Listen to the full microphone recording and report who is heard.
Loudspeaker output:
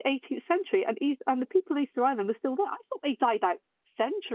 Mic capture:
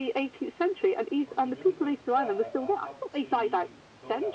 both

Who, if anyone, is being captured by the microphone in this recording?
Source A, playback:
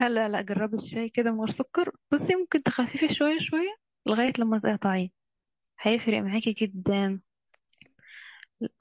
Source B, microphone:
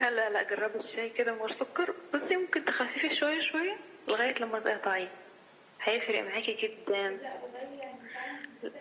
both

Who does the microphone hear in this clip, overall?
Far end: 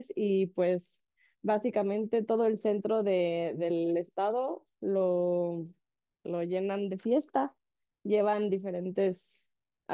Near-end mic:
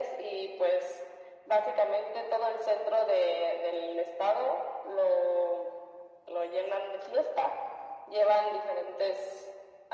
echo only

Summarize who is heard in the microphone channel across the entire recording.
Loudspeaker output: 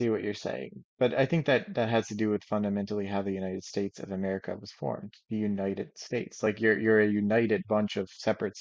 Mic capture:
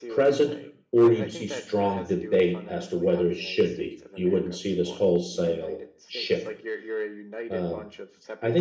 both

